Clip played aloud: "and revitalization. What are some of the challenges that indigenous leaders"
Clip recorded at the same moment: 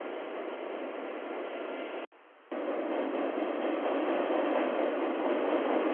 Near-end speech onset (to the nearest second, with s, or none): none